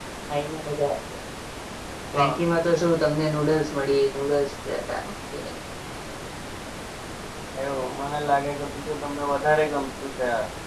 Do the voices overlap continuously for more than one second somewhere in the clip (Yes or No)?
No